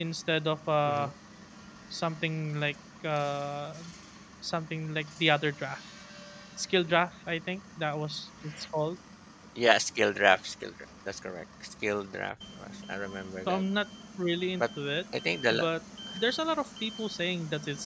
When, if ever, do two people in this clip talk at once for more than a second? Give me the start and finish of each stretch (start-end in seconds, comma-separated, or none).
none